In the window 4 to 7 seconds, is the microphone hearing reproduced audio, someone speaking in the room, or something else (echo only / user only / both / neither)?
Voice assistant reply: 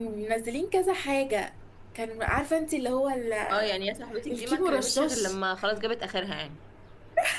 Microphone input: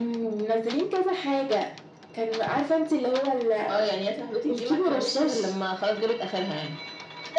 echo only